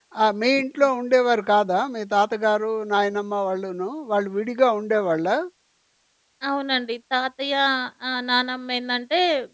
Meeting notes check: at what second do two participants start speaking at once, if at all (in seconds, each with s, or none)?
none